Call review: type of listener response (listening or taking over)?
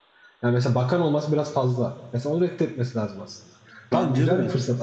listening